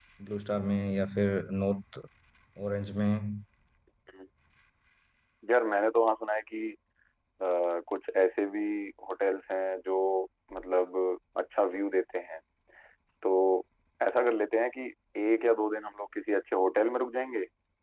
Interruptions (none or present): none